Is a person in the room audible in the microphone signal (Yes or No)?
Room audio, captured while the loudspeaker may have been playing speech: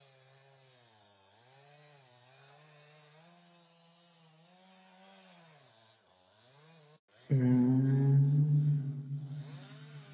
Yes